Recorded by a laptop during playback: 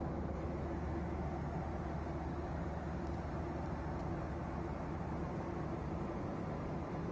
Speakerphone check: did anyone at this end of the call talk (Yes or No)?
No